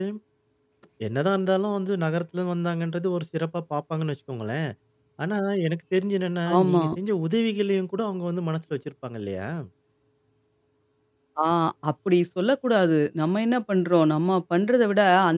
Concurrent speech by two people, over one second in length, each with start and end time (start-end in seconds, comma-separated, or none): none